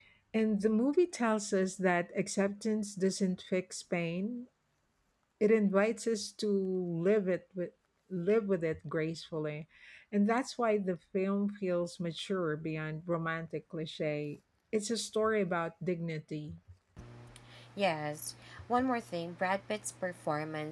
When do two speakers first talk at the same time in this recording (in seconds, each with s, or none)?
none